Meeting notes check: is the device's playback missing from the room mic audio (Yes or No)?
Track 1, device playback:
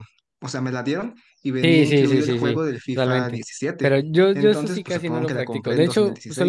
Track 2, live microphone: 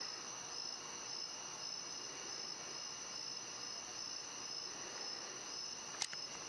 Yes